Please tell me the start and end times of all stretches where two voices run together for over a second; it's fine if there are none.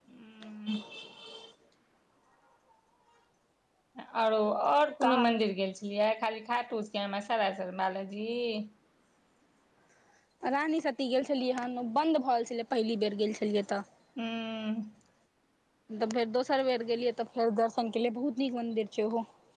none

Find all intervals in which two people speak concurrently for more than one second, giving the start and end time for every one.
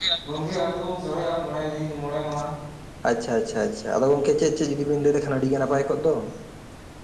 none

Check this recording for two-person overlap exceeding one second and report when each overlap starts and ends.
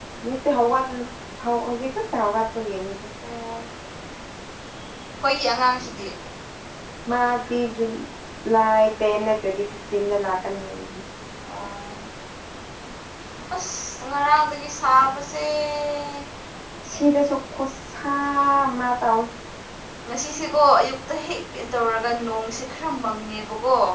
none

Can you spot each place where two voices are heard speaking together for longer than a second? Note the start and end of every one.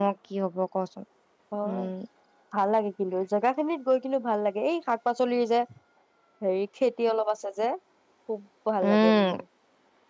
none

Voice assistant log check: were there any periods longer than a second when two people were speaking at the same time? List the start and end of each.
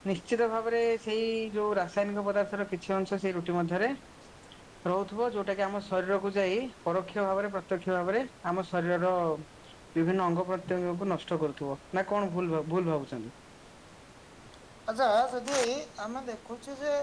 none

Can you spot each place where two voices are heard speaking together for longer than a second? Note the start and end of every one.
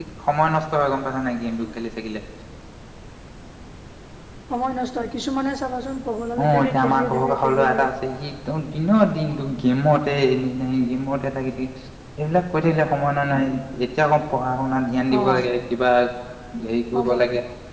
6.5-7.9

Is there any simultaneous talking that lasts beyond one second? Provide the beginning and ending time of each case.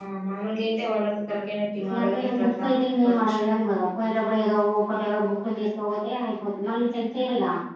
1.8-3.4

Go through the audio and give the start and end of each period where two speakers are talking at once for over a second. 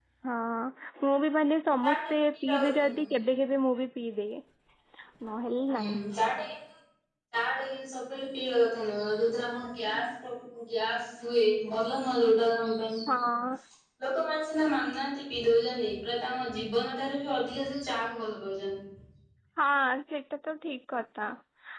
1.8-3.1

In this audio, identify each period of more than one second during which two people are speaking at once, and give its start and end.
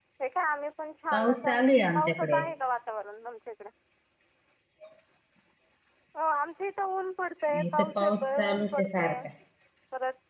1.1-2.4, 7.8-9.2

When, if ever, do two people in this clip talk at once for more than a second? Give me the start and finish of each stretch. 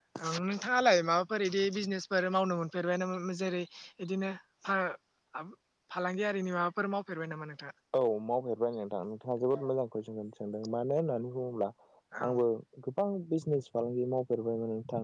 none

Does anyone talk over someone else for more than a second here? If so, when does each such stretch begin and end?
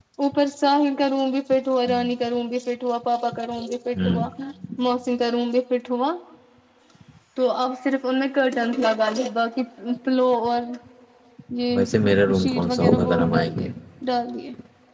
12.4-13.7

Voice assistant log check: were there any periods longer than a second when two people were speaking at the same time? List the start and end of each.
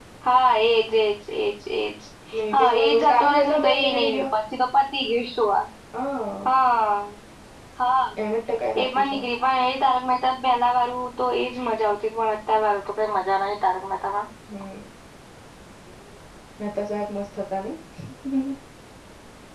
2.5-4.3

